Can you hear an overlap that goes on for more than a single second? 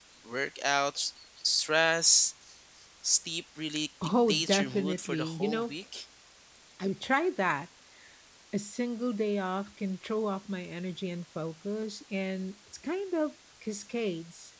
Yes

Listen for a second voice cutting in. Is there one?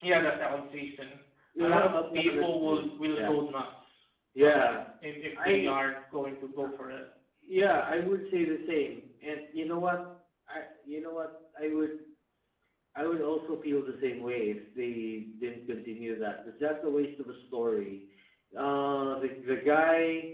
Yes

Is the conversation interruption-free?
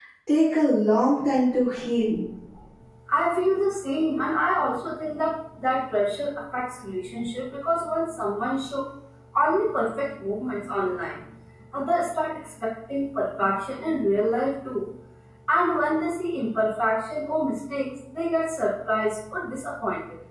Yes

